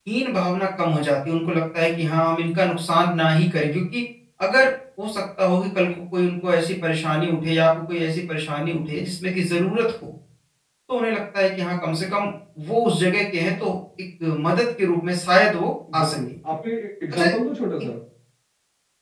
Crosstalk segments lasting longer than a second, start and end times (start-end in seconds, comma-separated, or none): none